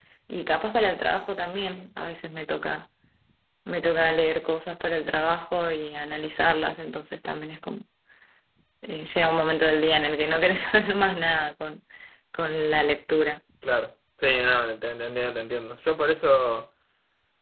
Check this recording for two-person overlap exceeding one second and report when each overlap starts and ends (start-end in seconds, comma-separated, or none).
none